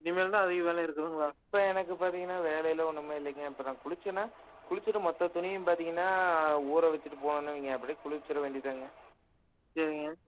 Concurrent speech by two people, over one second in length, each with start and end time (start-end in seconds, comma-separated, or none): none